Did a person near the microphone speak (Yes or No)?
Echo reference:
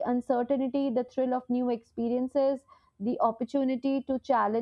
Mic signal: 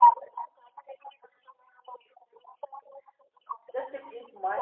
Yes